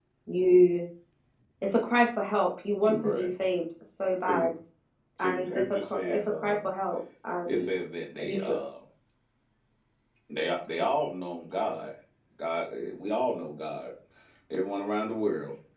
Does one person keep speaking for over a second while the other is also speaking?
Yes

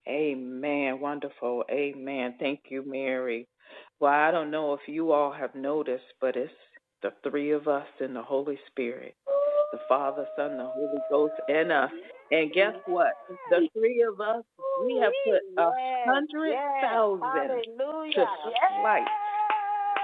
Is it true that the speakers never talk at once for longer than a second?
No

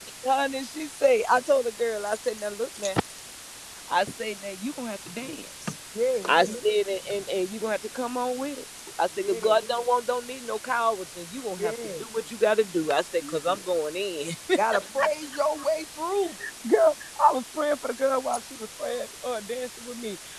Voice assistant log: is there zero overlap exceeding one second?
Yes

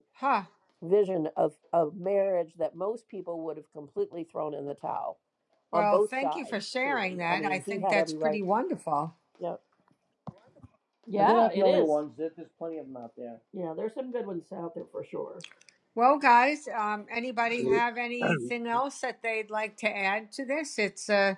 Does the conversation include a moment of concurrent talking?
Yes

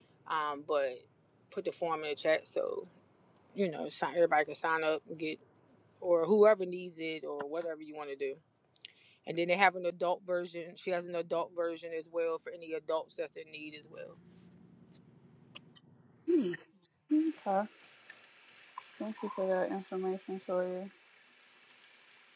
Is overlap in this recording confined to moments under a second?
Yes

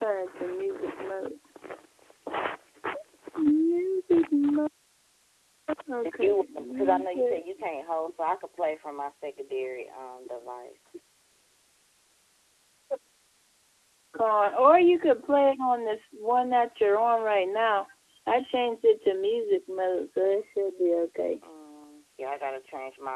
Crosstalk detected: Yes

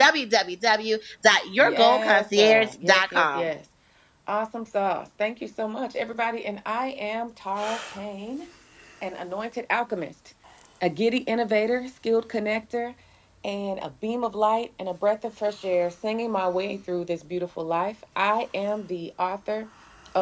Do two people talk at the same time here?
Yes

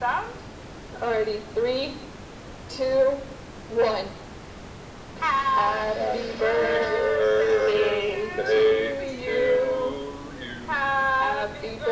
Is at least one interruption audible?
Yes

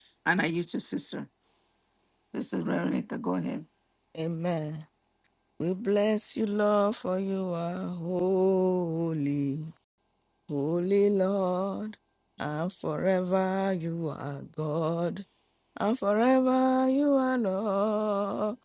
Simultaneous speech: No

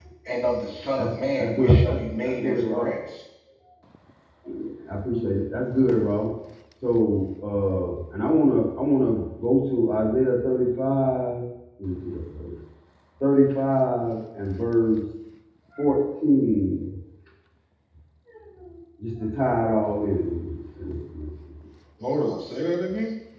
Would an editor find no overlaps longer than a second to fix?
No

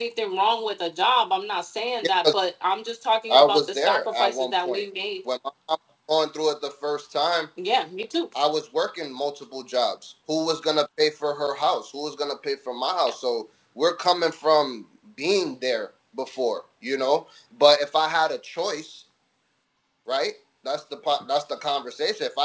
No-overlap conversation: No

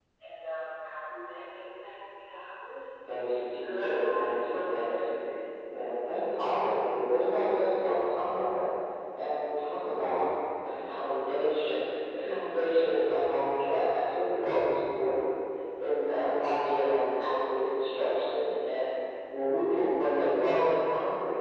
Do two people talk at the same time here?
Yes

